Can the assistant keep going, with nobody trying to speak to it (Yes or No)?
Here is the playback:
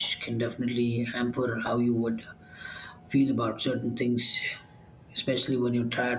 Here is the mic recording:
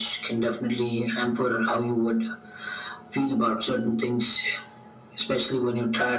Yes